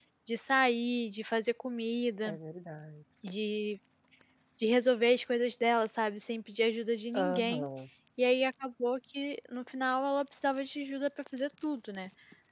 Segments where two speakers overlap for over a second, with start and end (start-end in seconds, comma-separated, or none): none